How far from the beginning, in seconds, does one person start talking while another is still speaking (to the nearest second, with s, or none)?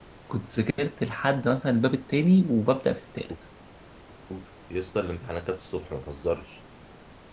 none